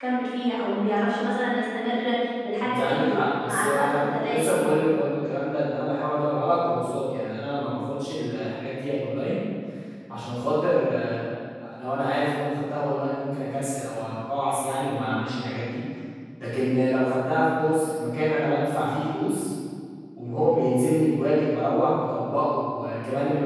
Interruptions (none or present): present